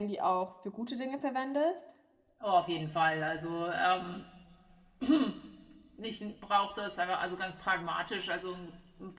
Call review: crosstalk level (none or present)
none